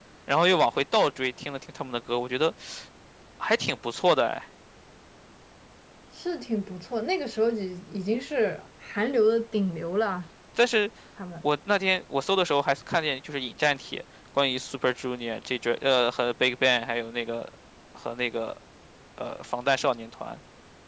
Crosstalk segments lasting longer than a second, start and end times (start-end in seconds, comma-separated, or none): none